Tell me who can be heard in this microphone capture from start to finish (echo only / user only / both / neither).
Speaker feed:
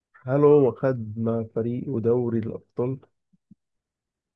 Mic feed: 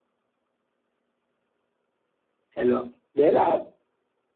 user only